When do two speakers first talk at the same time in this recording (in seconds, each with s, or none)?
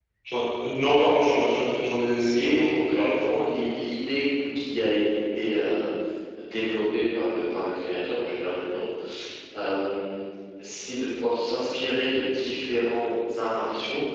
2.2 s